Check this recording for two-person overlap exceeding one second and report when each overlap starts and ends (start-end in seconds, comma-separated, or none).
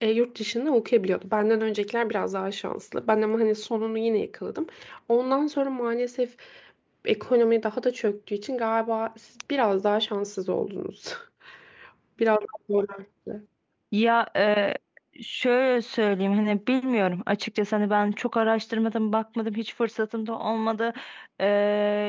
none